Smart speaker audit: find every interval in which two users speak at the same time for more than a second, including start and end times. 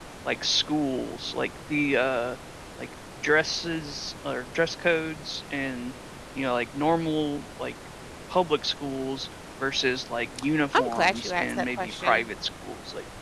10.7-12.2

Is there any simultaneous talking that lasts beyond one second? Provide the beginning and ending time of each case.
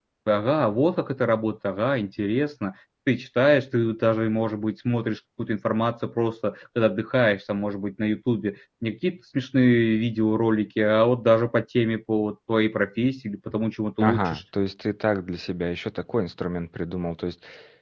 none

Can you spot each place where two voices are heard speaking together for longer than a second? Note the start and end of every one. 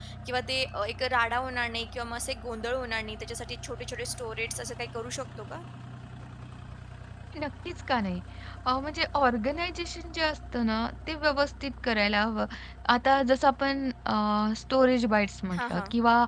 none

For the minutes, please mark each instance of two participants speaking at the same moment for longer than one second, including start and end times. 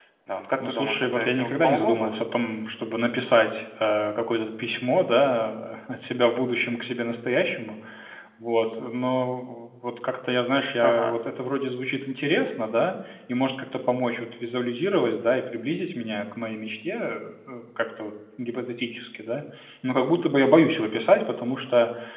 0.7-2.1

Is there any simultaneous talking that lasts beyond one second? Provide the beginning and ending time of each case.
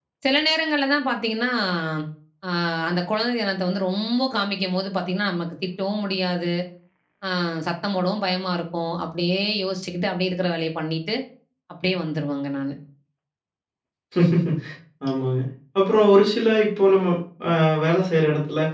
none

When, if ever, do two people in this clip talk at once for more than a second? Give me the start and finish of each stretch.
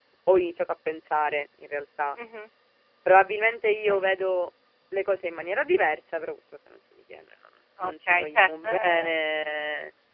7.8-9.1

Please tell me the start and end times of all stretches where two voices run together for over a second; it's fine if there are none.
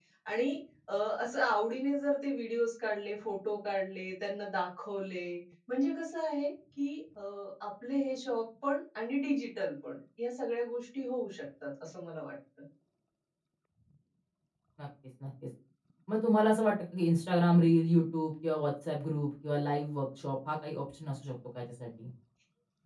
none

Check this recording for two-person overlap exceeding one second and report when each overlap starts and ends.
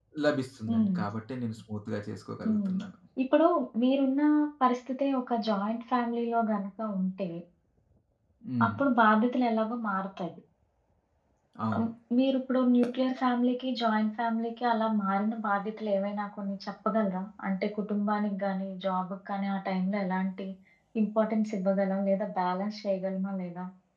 none

